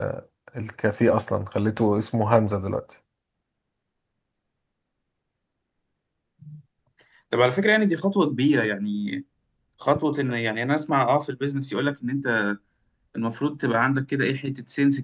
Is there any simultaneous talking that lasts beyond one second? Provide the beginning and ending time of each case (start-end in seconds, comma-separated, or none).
none